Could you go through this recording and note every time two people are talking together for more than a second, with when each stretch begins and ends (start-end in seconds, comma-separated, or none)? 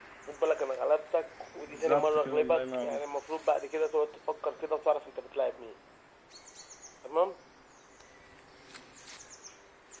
1.7-3.0